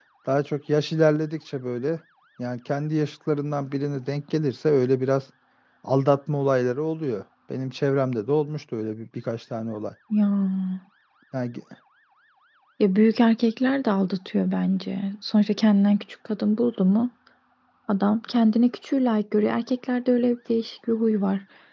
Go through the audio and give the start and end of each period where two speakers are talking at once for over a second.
none

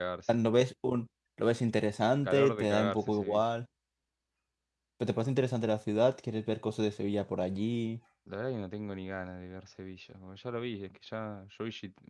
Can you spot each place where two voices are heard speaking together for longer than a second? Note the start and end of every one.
2.2-3.5

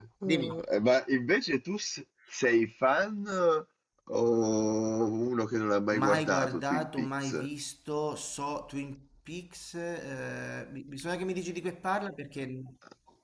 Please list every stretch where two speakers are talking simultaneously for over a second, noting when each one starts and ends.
5.9-7.5

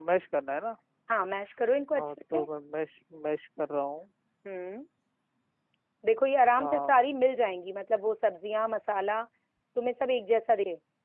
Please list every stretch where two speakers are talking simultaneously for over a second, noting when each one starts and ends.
none

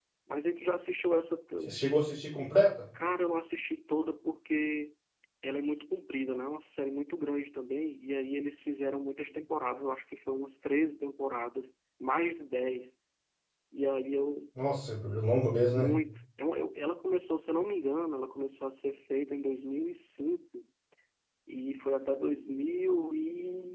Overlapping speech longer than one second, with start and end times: none

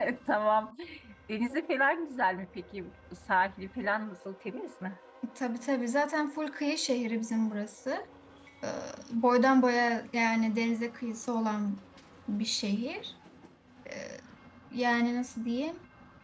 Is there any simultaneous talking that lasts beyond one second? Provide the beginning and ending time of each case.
none

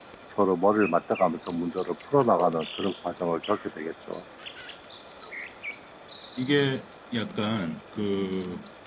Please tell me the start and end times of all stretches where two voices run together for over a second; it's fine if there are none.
none

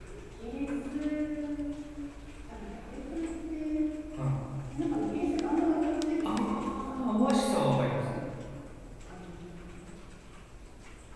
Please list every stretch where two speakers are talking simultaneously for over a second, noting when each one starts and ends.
6.2-8.2

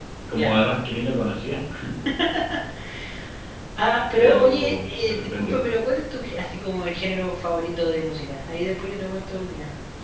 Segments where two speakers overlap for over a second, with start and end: 4.2-5.6

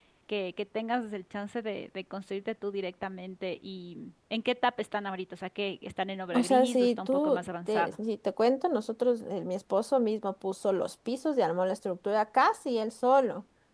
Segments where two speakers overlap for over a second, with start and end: 6.3-8.0

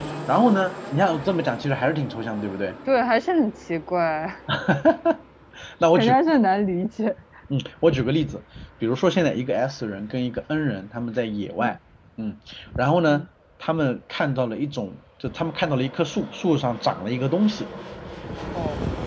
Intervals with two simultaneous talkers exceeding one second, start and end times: none

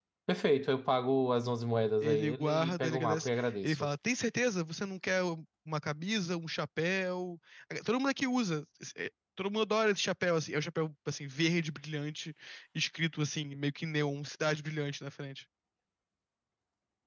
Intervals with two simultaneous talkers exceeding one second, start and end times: 2.0-3.9

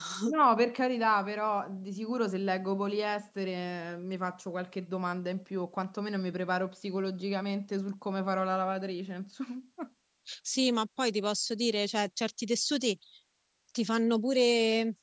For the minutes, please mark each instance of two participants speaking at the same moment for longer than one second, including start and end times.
none

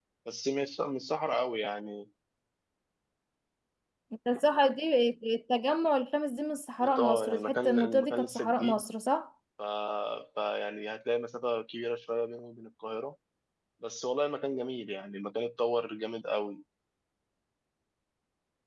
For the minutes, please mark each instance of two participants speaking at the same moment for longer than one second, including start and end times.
7.0-8.8

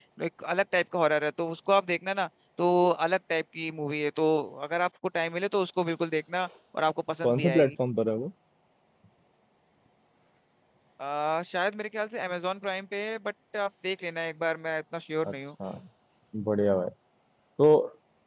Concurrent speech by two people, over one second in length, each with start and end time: none

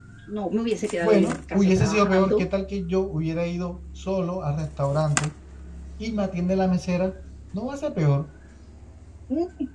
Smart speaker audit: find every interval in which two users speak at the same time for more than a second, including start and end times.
1.0-2.5

